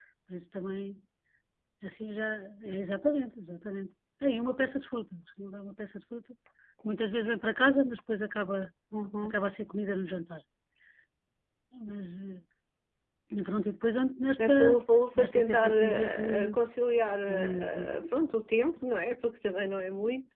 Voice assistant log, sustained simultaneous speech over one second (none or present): present